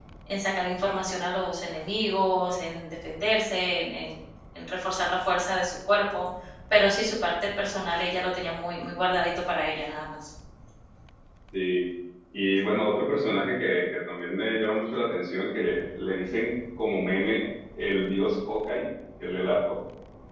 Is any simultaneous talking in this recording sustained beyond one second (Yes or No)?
No